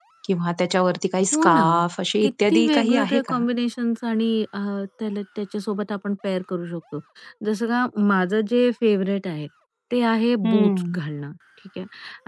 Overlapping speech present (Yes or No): Yes